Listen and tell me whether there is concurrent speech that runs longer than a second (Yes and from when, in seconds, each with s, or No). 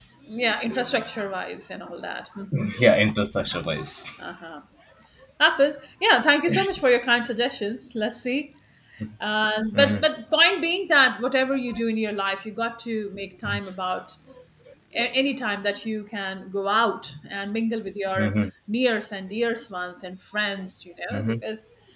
No